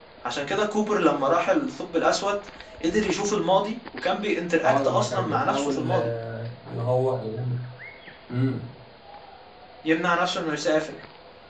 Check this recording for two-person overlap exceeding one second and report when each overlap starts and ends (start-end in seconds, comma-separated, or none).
4.6-6.1